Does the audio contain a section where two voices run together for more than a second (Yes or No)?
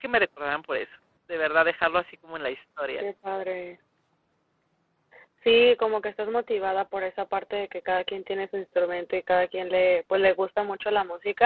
No